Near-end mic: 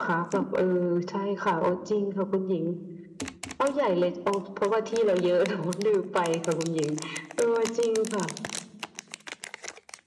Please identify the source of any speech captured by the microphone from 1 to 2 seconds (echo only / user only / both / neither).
echo only